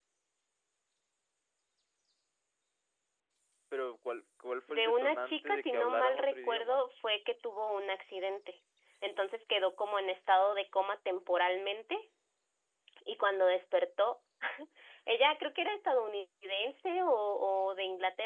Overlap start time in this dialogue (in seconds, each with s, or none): 4.7 s